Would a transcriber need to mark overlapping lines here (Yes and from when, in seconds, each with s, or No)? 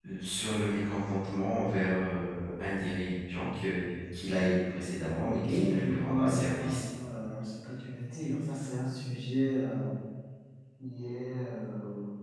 Yes, from 5.2 s